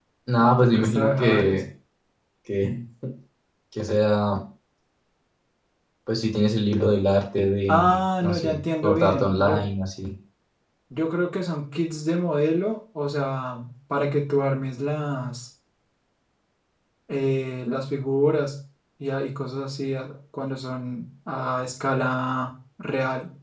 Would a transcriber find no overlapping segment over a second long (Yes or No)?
No